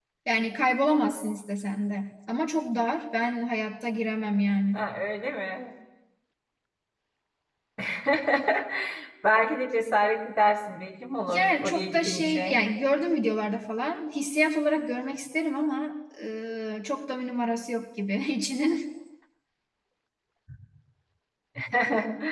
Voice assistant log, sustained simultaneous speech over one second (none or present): present